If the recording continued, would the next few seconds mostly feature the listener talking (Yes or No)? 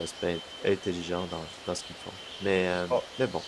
No